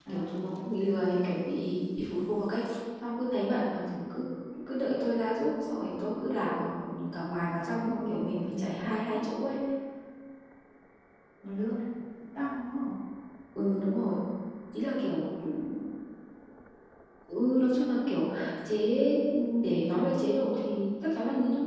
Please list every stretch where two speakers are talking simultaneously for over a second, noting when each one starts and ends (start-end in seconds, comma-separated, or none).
7.8-9.3